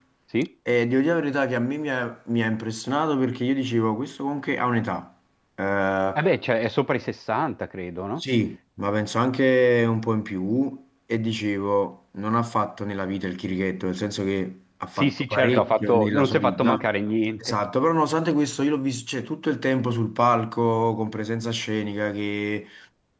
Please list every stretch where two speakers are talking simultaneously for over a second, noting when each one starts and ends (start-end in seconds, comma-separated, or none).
15.0-16.8